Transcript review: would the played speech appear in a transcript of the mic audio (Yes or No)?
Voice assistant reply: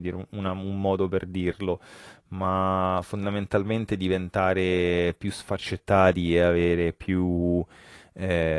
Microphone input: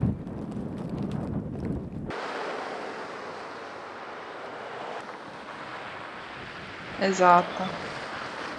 No